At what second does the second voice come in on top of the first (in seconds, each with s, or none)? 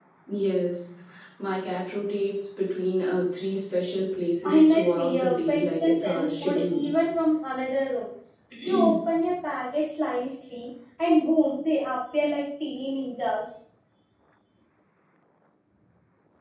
4.4 s